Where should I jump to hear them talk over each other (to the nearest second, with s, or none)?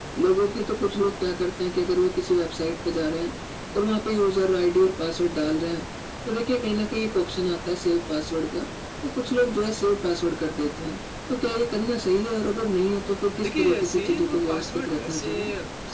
13 s